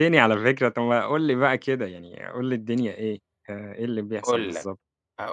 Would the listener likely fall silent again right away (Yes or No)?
No